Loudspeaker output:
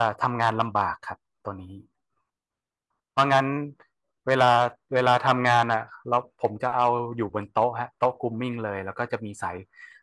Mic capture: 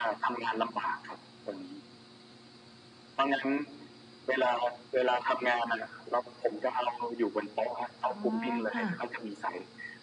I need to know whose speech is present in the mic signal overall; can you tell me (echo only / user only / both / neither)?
both